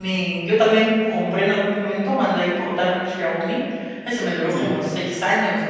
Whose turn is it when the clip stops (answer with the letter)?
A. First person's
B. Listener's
A